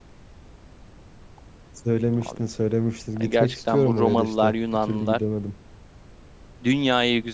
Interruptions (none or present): present